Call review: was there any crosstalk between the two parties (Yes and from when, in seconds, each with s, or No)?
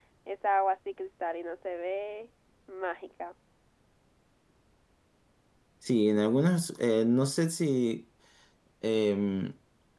No